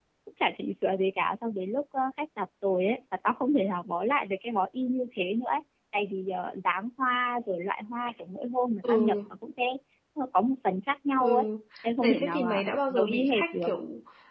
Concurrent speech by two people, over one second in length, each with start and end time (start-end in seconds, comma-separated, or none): 12.0-13.7